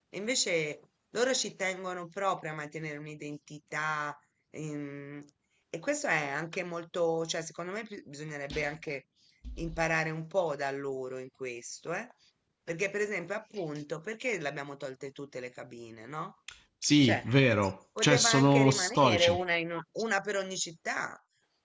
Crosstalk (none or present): present